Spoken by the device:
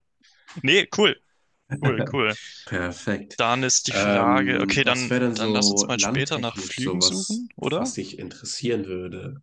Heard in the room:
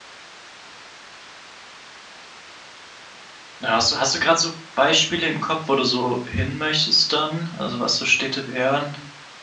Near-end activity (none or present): present